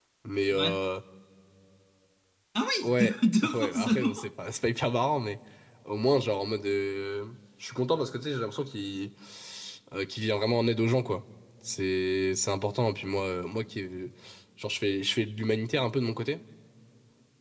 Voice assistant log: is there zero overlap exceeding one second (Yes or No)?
No